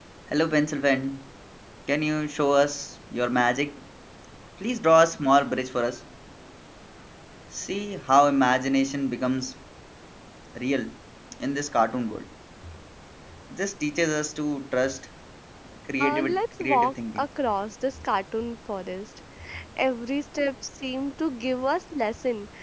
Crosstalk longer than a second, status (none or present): present